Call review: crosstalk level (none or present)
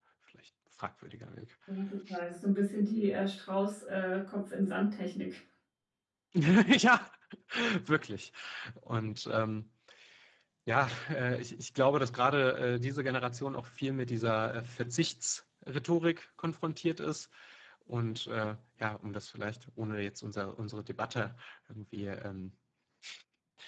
none